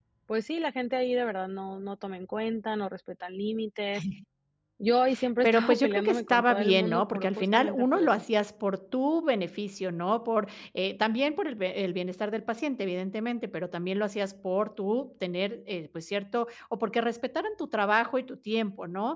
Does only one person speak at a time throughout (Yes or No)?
No